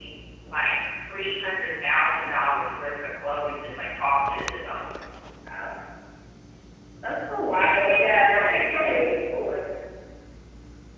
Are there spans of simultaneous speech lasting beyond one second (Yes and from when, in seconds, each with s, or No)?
Yes, from 7.5 s